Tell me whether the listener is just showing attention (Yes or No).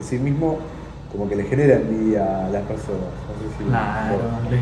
No